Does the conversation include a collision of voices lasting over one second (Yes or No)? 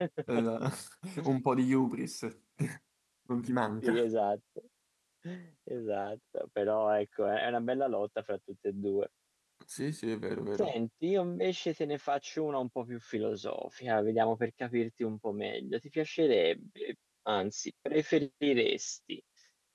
No